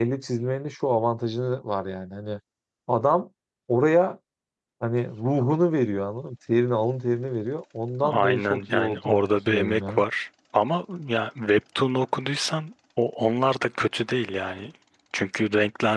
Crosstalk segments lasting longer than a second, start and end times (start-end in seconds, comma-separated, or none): 8.0-10.0